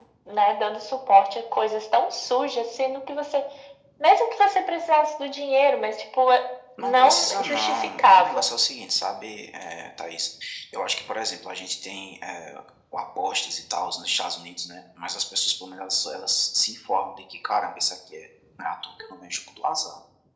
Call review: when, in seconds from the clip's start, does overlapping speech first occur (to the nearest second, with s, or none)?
7 s